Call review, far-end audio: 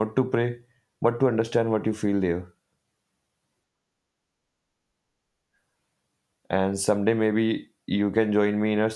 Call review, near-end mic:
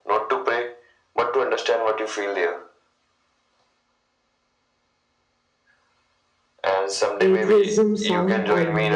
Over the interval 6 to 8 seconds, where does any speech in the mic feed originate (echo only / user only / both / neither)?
both